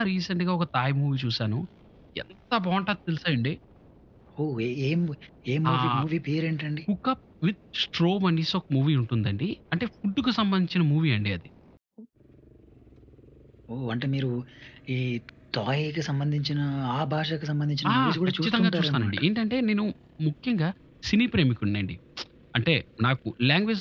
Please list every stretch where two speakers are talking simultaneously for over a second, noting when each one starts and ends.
17.9-19.2

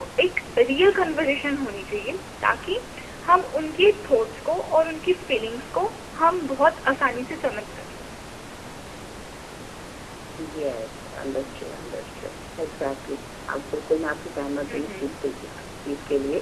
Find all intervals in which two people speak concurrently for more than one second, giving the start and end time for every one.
none

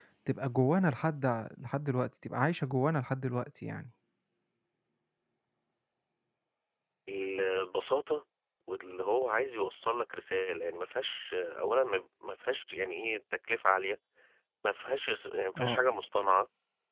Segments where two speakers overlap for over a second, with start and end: none

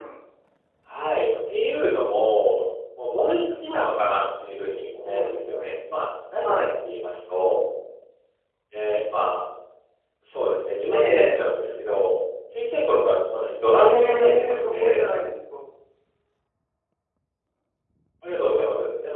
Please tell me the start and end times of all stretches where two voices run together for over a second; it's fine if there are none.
13.8-15.0

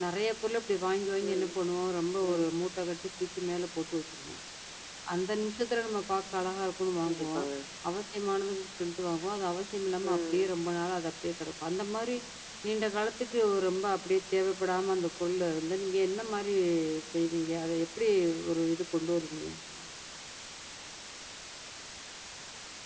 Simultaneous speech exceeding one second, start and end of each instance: none

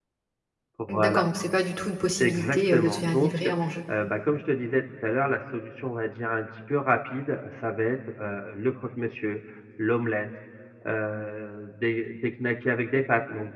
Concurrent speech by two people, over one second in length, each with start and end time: 2.2-3.5

